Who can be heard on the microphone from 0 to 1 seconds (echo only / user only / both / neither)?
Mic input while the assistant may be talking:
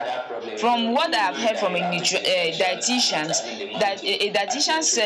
both